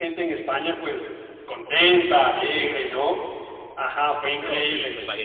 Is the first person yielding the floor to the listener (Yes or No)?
Yes